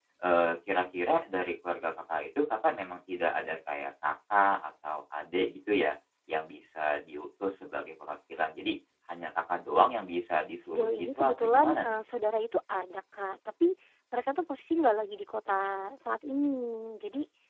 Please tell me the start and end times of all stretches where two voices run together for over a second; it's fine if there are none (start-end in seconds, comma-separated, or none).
10.6-12.0